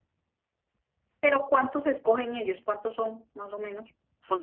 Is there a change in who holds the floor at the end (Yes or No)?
Yes